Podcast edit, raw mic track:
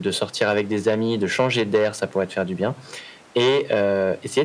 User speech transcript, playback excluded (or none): none